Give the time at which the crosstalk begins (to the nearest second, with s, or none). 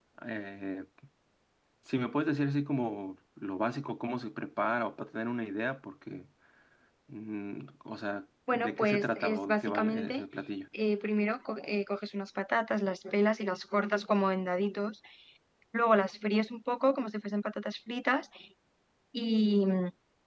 8 s